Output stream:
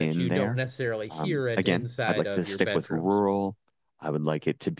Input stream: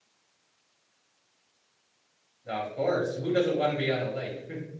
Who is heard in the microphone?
user only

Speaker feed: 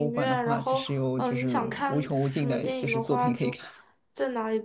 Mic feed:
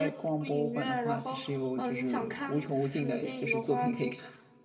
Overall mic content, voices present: echo only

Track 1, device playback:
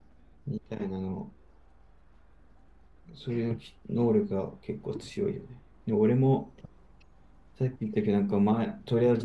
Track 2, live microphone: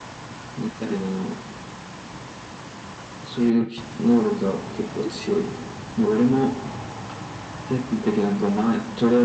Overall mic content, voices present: echo only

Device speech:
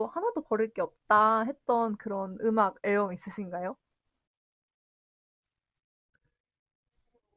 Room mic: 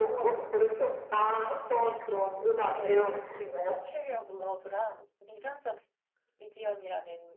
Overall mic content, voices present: both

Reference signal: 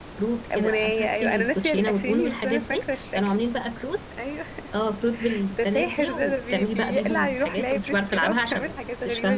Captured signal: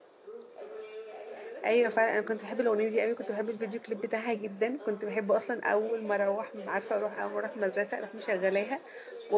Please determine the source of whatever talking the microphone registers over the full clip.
both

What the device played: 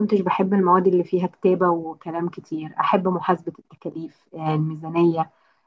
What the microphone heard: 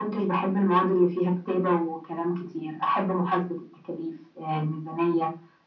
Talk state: echo only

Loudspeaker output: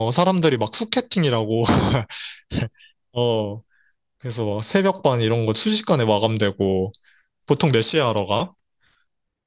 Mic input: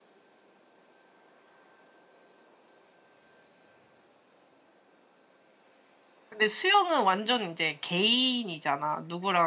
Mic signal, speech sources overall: user only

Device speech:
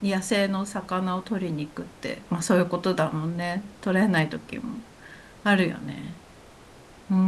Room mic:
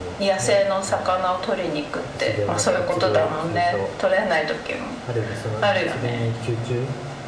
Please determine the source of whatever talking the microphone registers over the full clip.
both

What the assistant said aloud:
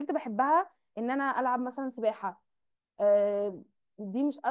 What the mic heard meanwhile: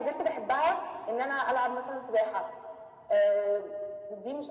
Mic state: echo only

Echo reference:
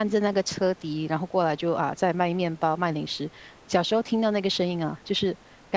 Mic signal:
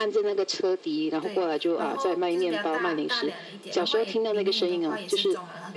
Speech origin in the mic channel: both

